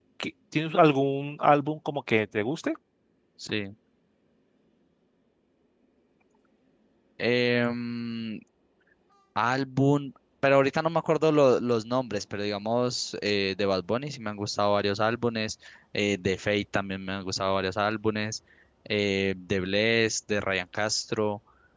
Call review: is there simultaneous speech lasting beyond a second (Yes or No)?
No